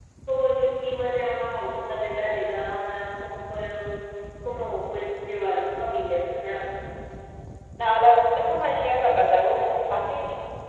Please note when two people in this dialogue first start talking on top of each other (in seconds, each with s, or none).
none